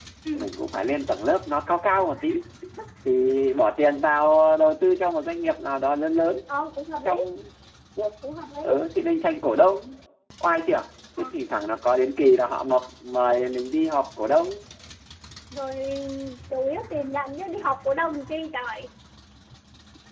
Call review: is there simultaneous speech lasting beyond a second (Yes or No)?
No